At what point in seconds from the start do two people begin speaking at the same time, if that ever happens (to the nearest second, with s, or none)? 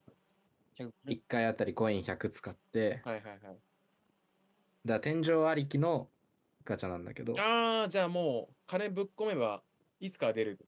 none